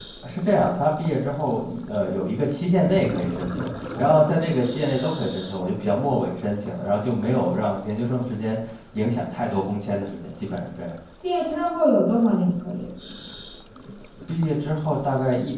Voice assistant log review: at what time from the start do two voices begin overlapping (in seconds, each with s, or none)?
none